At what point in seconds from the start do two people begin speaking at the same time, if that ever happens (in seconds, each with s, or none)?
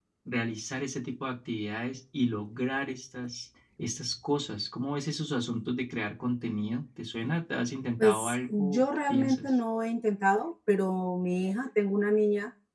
8.0 s